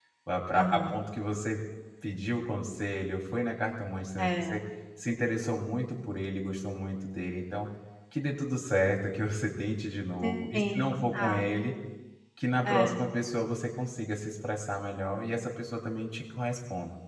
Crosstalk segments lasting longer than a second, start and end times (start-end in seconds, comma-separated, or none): 10.2-11.6